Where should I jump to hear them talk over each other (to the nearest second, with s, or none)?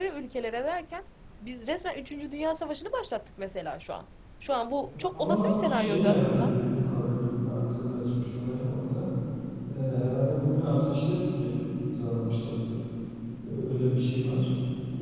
5 s